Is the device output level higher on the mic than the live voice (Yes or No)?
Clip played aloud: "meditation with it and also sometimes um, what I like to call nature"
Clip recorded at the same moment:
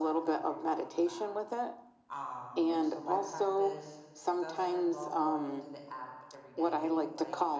Yes